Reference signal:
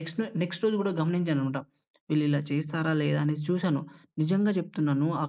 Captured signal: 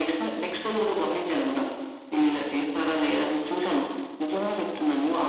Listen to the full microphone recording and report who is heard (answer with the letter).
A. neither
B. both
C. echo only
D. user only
C